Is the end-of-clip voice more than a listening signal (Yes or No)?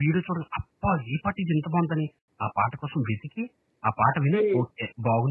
No